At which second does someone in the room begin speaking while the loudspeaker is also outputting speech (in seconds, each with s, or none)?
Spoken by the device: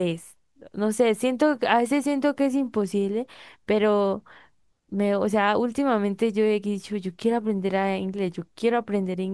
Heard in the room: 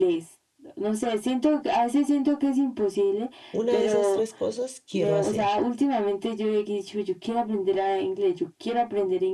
3.5 s